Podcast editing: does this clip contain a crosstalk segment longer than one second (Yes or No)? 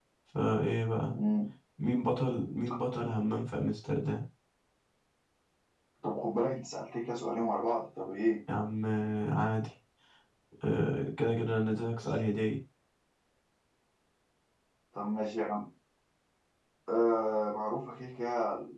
No